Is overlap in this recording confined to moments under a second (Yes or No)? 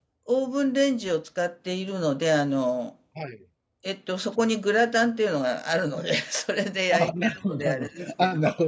No